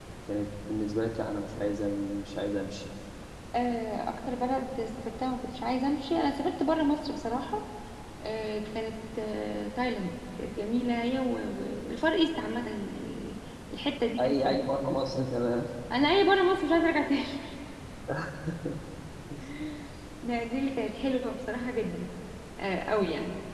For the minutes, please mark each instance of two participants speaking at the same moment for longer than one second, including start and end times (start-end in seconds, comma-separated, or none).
none